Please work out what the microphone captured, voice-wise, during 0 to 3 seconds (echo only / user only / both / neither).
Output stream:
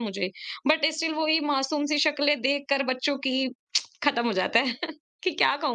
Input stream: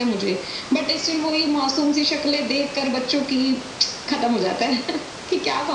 echo only